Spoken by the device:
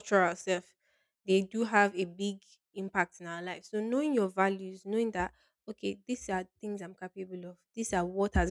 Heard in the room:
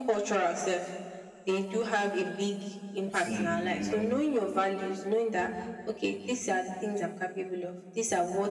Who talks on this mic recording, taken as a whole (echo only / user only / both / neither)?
both